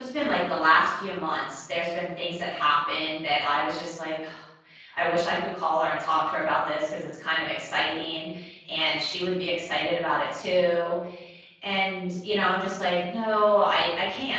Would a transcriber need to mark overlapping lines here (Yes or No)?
No